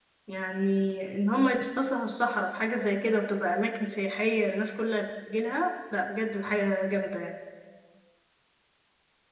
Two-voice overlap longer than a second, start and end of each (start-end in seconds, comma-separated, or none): none